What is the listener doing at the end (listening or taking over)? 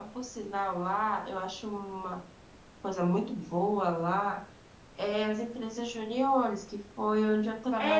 taking over